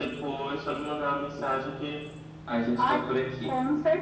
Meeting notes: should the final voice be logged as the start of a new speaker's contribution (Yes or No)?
Yes